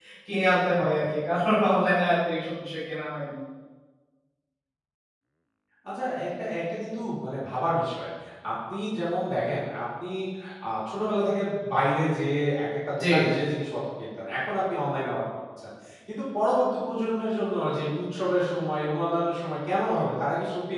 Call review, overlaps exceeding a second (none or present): none